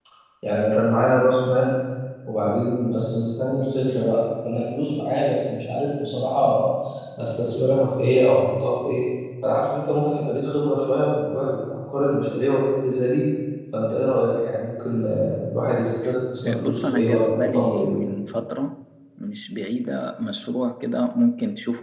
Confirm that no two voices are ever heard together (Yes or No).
No